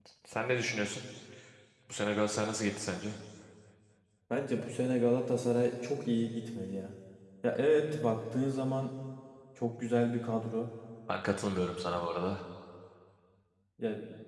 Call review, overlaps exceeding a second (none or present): none